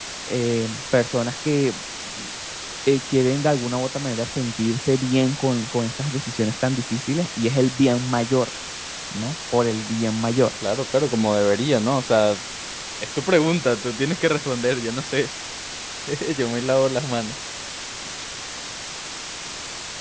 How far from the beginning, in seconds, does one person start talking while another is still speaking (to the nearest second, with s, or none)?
none